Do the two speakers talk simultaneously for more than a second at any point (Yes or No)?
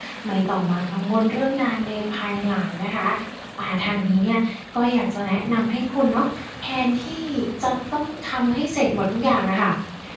No